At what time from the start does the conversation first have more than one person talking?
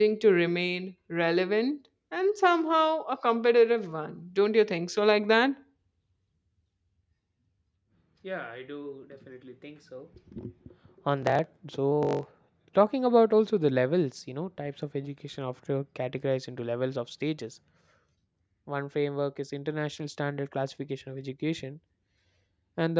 none

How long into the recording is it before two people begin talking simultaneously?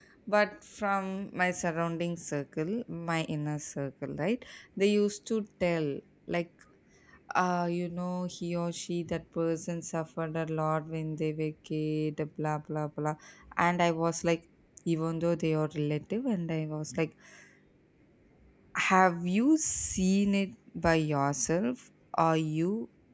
none

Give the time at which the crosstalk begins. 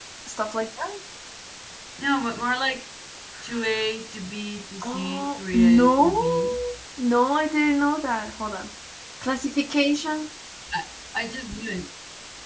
4.8 s

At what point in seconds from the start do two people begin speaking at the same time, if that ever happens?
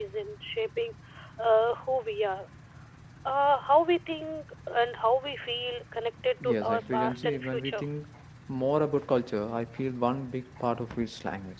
6.4 s

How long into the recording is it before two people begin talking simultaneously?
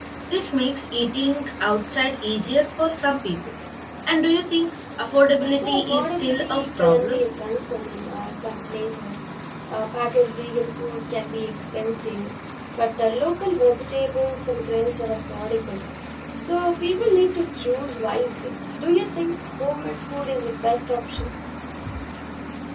5.6 s

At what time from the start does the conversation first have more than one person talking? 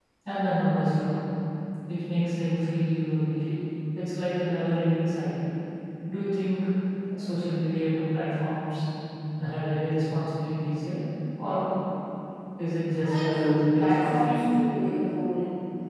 13.0 s

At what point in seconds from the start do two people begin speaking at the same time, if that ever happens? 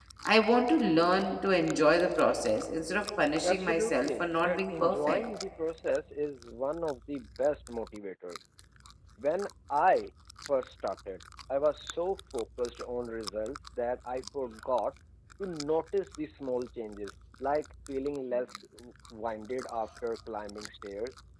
3.4 s

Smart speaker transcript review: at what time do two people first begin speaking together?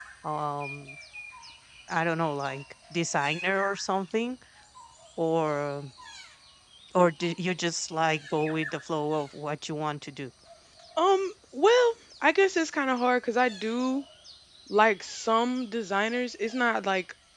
none

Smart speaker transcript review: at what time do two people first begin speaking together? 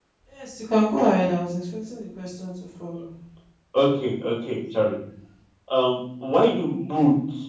none

